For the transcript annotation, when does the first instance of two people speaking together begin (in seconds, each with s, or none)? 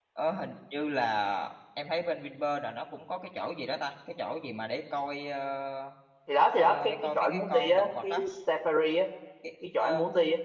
6.6 s